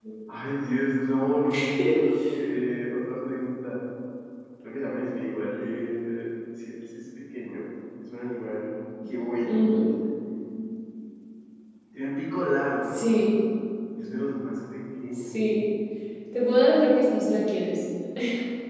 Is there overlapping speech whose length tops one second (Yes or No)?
No